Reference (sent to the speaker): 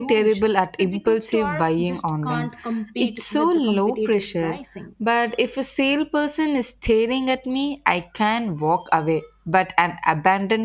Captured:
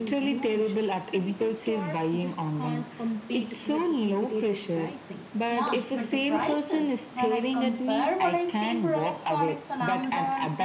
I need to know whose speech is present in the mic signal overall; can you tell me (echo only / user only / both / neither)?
both